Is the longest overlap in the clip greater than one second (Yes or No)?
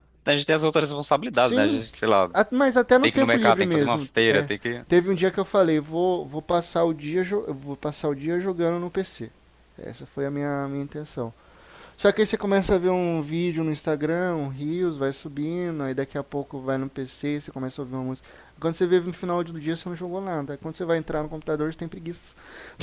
Yes